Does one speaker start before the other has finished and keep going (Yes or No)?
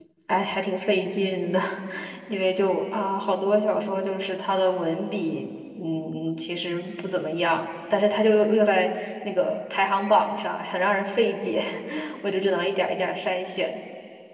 No